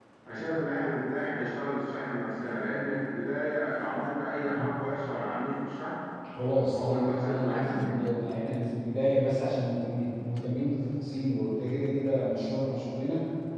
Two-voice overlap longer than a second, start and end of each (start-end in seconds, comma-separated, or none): 6.7-8.0